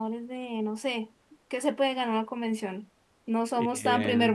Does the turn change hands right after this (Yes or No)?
No